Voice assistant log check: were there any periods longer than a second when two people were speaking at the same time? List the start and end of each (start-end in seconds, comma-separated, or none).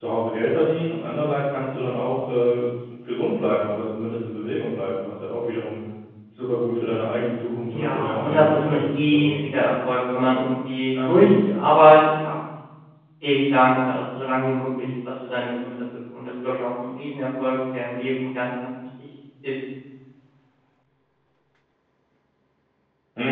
7.8-9.4